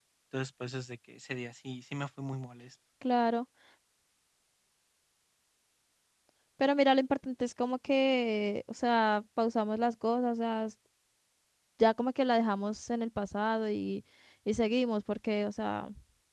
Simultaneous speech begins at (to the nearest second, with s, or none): none